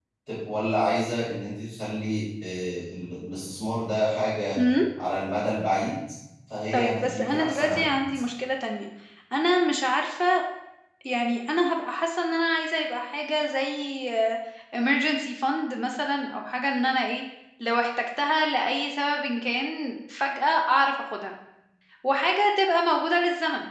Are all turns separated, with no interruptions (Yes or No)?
No